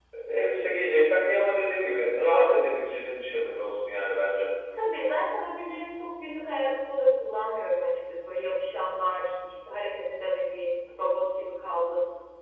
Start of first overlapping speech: none

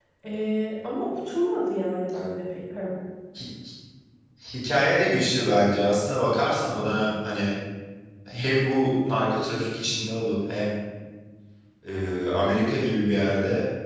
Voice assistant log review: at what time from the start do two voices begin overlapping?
none

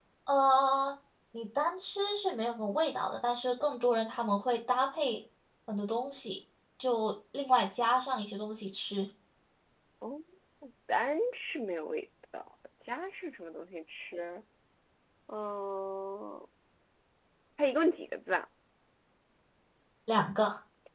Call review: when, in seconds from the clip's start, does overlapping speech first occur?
none

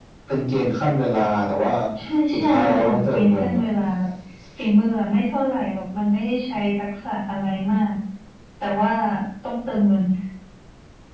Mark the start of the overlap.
2.3 s

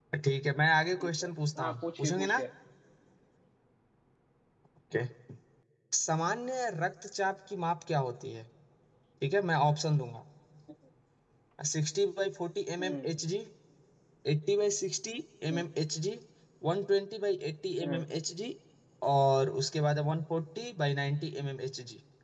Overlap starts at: 1.0 s

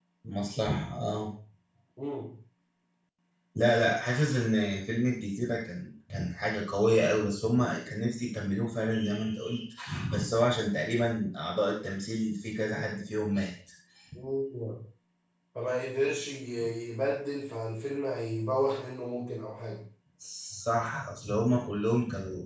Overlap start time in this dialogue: none

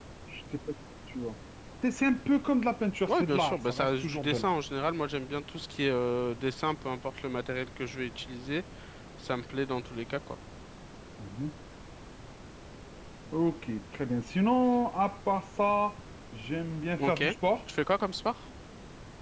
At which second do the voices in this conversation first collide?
3.1 s

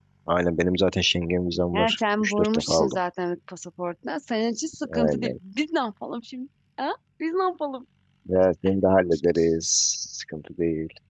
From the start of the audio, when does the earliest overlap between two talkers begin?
1.7 s

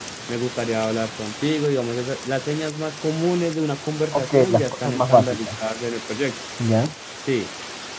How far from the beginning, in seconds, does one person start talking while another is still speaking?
4.1 s

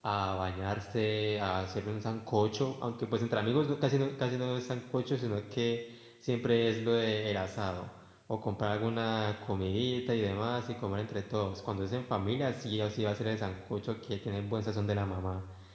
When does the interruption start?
none

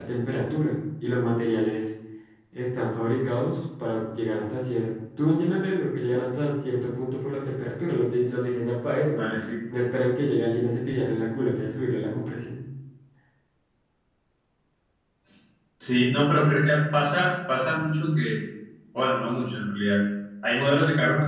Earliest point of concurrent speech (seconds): none

